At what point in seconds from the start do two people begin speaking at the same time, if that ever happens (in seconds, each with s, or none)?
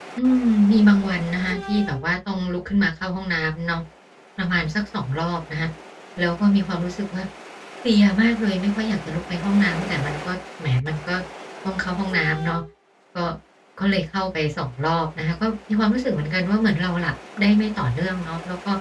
none